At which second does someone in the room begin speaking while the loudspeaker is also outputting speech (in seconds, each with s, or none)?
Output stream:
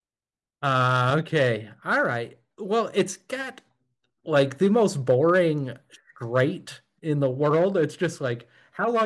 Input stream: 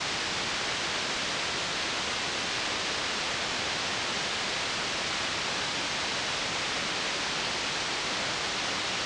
none